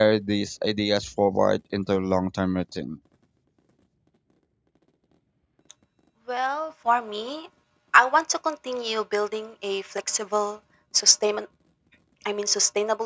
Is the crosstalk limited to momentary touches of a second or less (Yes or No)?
Yes